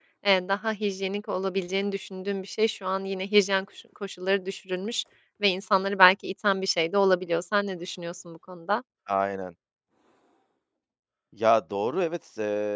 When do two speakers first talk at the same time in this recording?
none

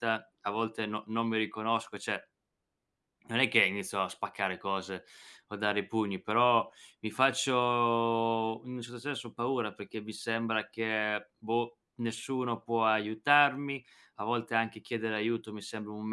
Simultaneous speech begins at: none

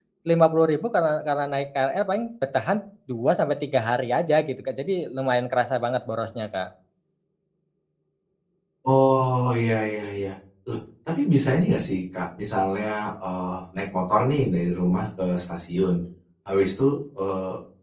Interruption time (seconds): none

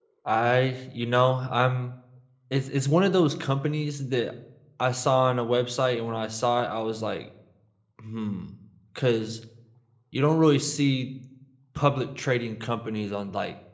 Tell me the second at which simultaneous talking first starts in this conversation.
none

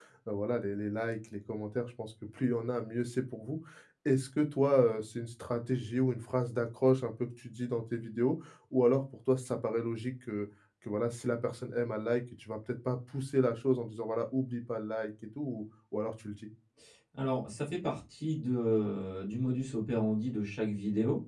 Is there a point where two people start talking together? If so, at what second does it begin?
none

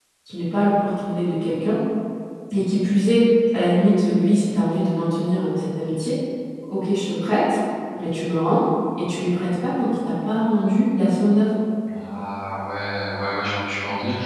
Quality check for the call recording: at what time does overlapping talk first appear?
none

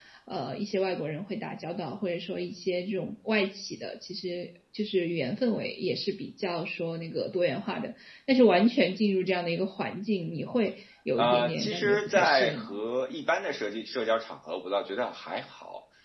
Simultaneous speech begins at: 11.2 s

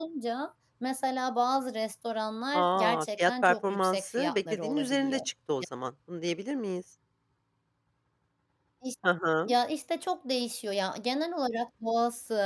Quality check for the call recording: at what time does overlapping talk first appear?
2.5 s

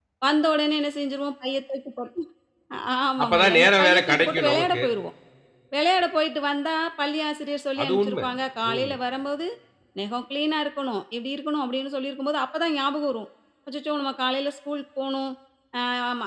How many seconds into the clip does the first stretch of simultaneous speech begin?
3.2 s

